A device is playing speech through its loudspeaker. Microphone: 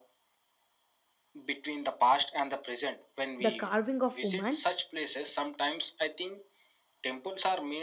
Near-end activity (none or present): present